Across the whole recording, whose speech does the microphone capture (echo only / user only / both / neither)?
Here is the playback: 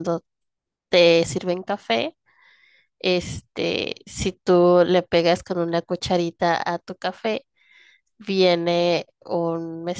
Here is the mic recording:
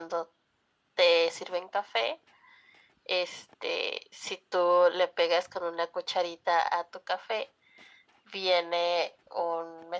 echo only